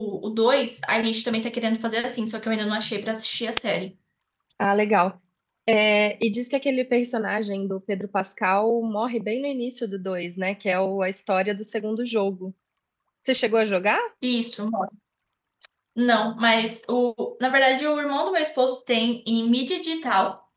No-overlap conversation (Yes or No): Yes